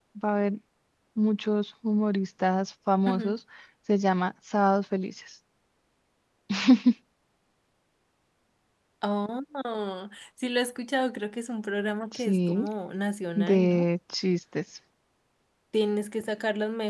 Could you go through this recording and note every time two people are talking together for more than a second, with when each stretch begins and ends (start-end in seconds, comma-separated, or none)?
none